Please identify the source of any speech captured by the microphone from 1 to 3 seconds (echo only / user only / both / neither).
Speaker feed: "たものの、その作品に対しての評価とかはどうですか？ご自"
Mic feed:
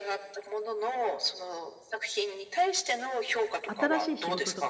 echo only